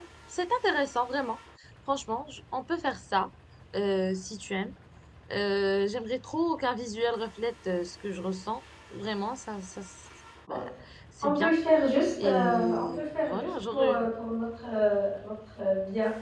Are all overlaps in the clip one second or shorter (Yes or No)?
No